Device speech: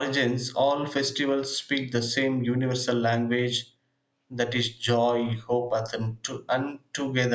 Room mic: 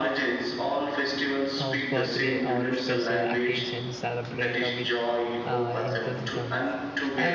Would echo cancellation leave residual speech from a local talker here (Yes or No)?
Yes